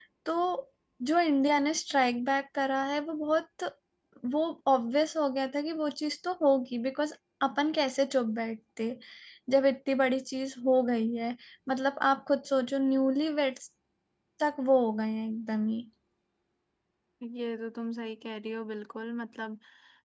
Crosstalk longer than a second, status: none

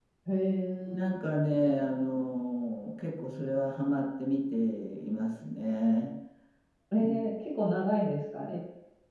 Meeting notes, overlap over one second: none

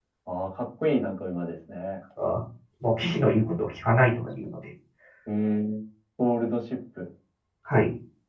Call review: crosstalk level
none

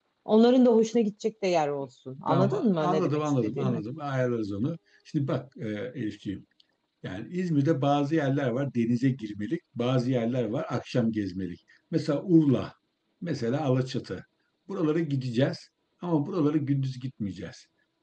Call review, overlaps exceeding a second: present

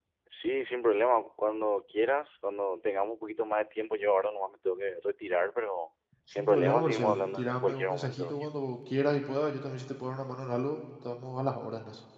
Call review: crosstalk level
present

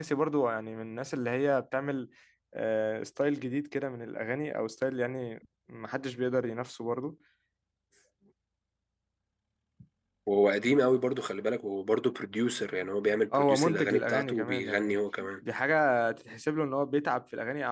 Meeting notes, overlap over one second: present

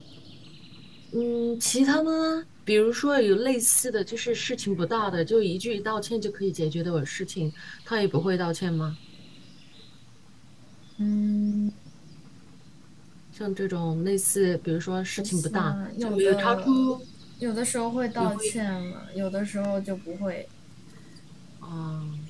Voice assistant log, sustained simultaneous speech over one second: present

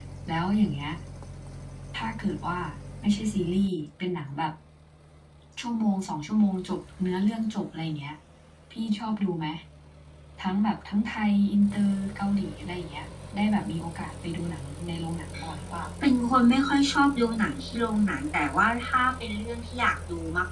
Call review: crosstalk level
none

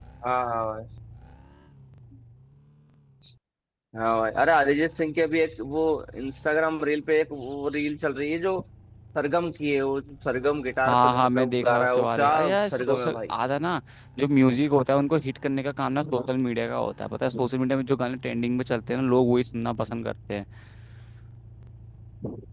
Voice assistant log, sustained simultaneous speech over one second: present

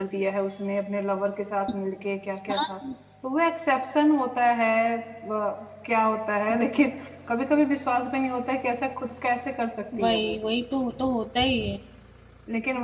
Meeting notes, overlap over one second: none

